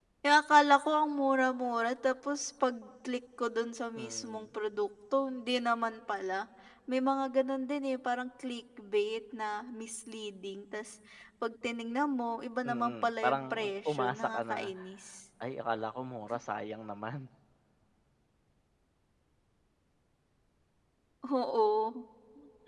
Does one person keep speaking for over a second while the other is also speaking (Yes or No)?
Yes